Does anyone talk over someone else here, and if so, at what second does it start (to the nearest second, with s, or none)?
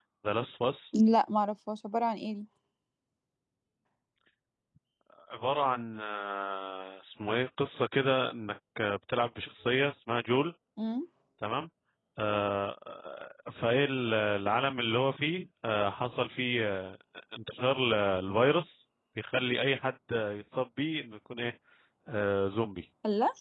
none